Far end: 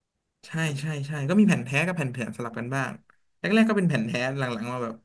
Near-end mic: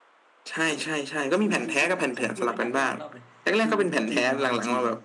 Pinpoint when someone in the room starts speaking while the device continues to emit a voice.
1.4 s

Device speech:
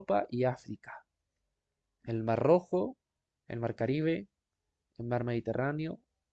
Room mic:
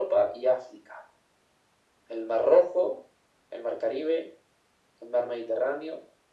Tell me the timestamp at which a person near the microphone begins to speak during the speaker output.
none

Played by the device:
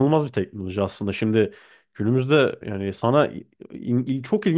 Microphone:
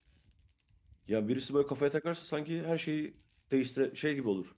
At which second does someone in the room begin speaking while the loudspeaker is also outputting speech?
1.1 s

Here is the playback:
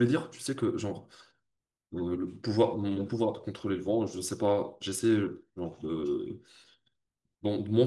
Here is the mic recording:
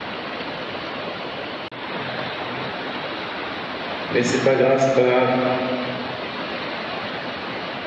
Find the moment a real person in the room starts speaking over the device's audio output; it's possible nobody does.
4.1 s

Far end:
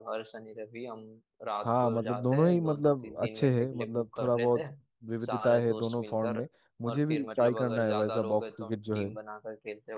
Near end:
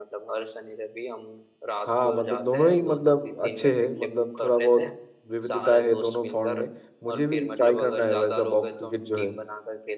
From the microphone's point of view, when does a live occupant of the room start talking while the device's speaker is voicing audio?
none

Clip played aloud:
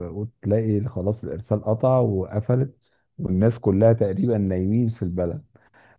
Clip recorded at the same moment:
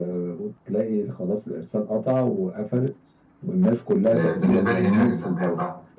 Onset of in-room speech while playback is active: 4.1 s

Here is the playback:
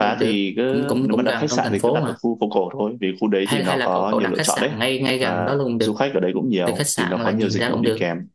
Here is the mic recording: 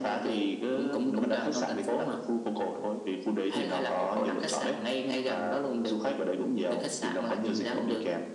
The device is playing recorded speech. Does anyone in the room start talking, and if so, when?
none

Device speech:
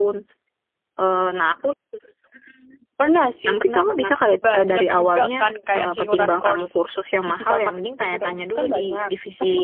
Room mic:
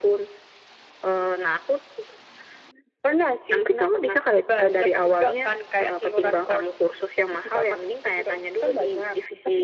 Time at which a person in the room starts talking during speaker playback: none

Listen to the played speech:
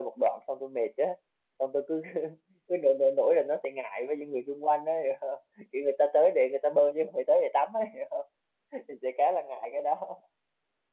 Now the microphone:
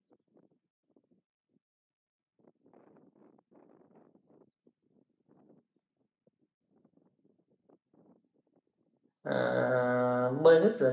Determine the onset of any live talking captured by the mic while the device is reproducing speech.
9.2 s

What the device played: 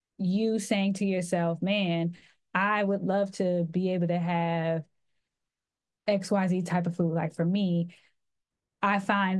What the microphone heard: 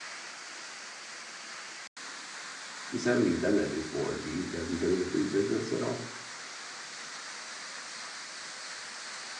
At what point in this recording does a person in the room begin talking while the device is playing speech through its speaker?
2.9 s

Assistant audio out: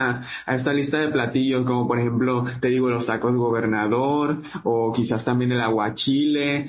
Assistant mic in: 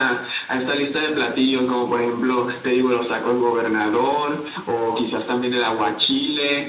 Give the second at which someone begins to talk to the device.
none

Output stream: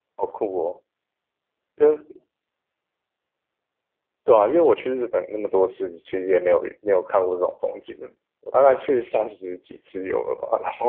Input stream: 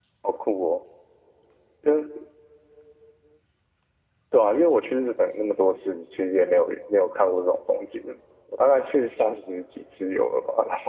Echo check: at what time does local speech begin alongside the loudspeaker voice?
none

